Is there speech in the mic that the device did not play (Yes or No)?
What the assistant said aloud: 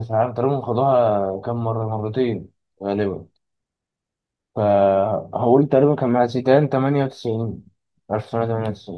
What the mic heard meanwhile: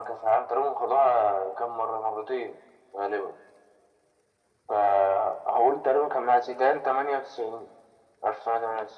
No